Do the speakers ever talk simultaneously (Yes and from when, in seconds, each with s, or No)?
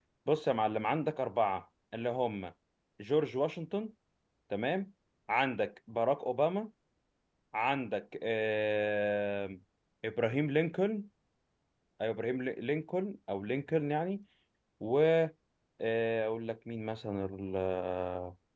No